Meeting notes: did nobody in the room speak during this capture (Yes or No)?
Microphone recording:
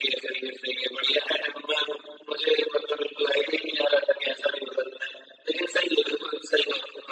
Yes